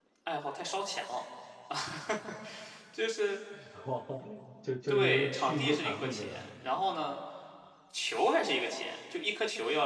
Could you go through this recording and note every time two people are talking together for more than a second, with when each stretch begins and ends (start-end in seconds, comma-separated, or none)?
4.9-6.5